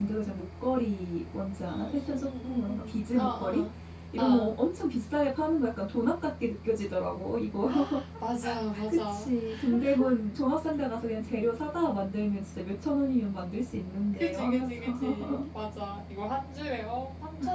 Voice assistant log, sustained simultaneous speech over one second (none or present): present